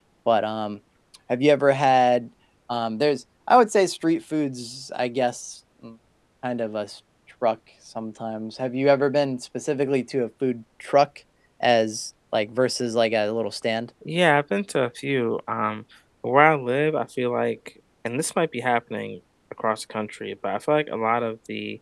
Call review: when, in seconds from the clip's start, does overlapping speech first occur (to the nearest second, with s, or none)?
none